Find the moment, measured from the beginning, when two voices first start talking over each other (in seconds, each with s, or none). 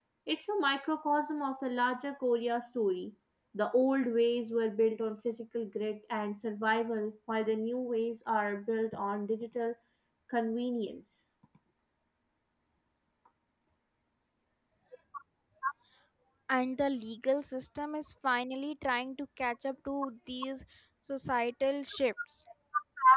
none